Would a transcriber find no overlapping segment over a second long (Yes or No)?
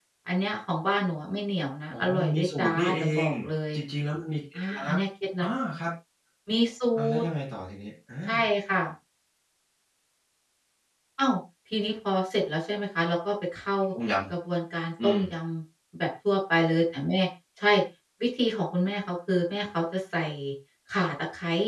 No